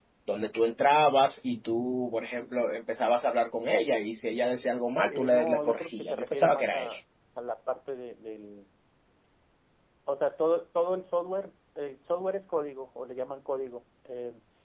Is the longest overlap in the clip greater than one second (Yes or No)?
Yes